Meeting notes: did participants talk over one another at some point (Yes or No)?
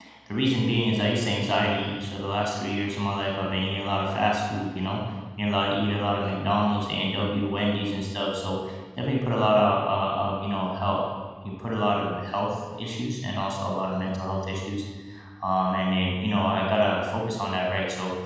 No